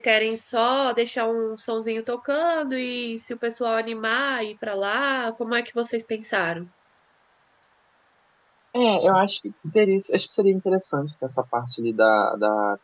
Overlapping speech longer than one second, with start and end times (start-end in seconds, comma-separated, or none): none